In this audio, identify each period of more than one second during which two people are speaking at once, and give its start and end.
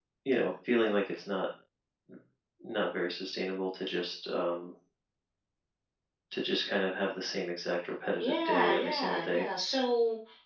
8.2-9.4

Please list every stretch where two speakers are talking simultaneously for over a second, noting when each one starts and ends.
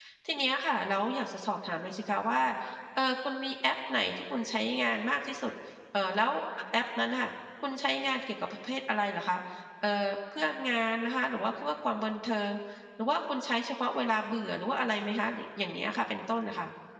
none

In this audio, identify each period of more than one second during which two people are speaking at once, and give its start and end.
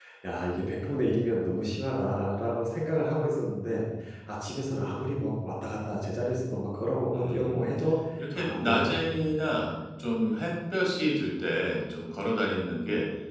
8.3-9.6

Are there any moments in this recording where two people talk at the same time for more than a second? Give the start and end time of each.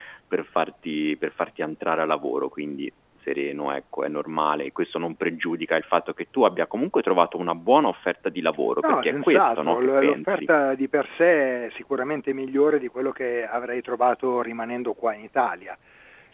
8.8-10.4

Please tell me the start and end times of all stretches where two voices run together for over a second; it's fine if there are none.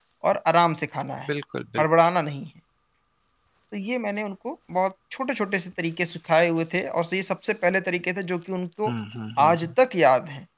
none

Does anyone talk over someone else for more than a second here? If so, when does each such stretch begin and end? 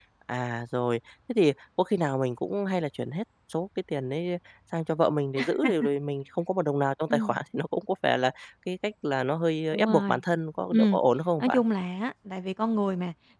none

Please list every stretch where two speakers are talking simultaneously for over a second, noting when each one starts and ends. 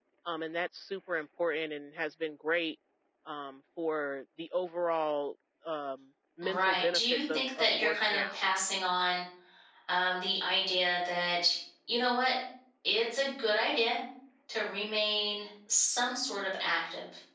6.4-8.4

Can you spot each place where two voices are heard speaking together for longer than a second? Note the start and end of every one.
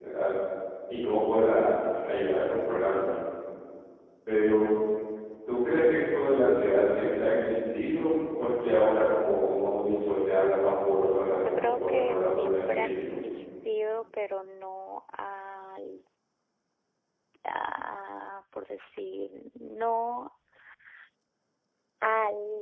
11.4-13.1

